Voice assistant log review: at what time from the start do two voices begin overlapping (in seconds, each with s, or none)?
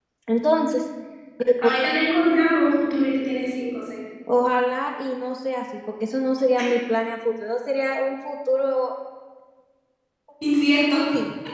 none